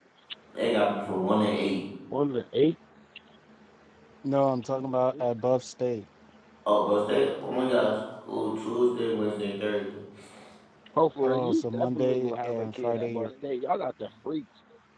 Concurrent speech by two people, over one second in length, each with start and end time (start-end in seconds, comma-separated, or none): 11.2-13.3